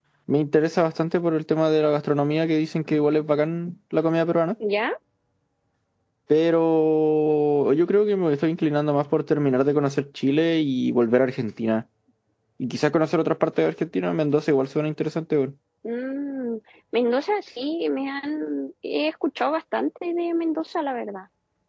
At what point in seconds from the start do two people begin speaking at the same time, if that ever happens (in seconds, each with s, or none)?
none